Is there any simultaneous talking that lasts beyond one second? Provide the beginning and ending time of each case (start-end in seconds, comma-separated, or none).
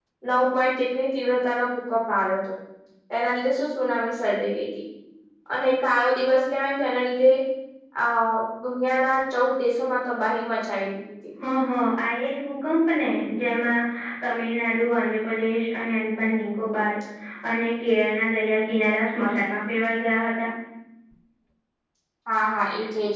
none